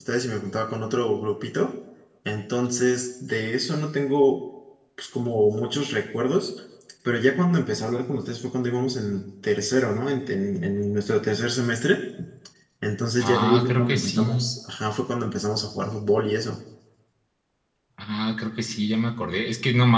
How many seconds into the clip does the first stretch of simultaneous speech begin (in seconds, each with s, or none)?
13.2 s